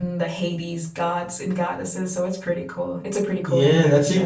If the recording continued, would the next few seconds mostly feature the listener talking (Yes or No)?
Yes